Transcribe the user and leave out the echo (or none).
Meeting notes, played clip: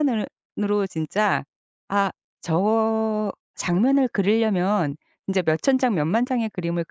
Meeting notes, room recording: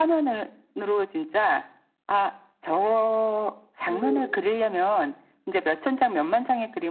그